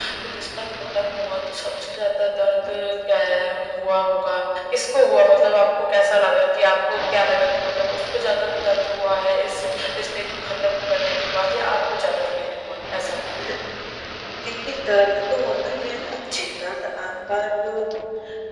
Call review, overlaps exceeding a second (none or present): none